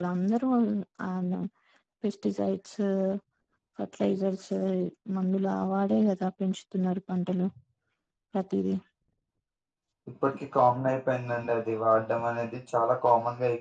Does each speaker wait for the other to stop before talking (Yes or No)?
Yes